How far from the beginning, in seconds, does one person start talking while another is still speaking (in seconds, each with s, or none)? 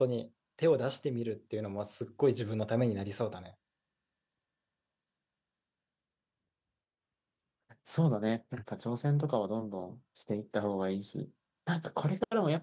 none